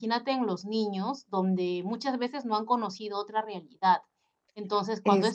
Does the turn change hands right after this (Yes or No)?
No